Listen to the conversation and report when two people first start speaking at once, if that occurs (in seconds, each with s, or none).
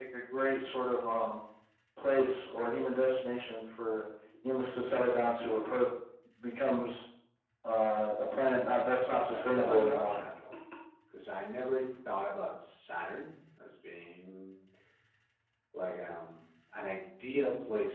9.0 s